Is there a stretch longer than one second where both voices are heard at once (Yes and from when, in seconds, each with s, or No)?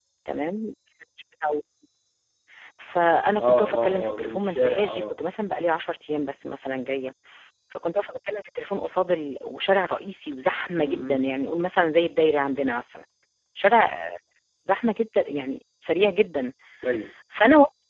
Yes, from 3.4 s